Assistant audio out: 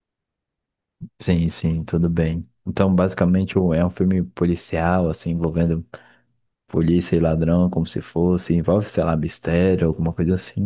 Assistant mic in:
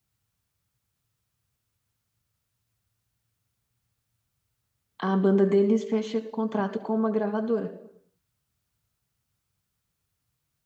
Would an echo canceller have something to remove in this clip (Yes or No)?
No